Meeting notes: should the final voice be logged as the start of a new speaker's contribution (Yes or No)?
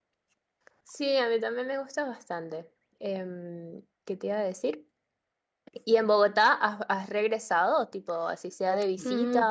Yes